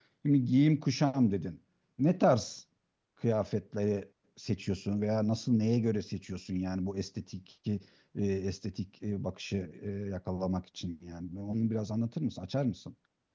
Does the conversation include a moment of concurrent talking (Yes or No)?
No